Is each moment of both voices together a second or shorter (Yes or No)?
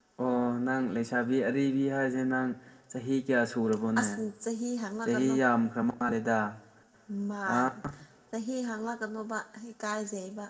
Yes